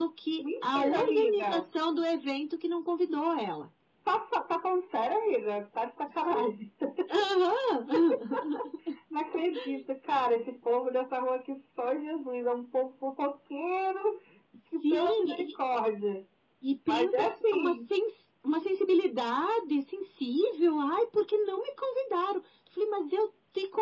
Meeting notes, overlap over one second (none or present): present